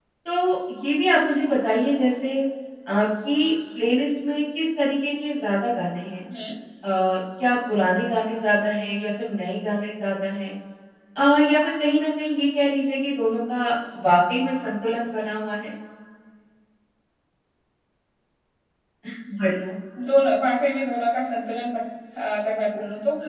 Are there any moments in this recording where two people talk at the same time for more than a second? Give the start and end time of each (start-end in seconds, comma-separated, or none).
none